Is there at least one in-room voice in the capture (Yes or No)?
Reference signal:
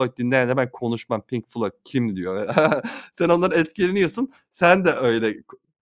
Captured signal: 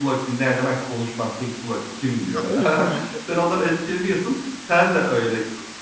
Yes